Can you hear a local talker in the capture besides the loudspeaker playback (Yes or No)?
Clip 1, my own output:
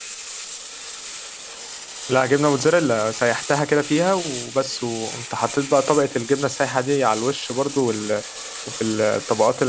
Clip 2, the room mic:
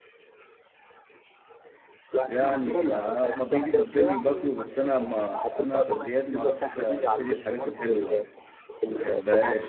Yes